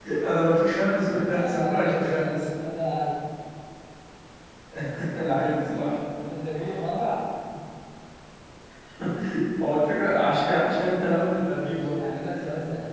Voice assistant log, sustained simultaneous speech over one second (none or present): present